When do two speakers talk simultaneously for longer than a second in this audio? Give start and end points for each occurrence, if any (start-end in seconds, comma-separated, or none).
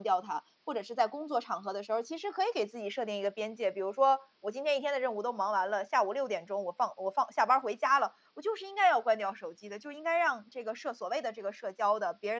none